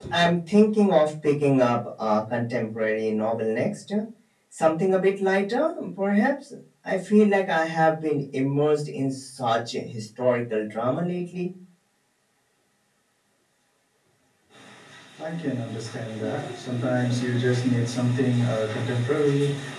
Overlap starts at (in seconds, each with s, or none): none